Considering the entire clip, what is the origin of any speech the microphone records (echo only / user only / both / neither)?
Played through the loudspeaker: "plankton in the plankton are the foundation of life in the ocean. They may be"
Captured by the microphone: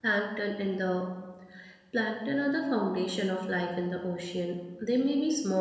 echo only